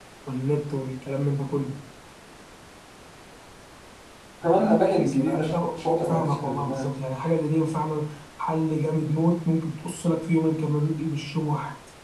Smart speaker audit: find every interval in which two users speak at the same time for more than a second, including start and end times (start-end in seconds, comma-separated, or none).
5.8-7.0